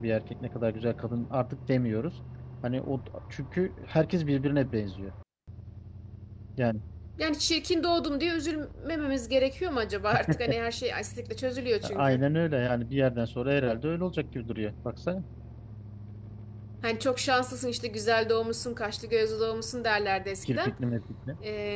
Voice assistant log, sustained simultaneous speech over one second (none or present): none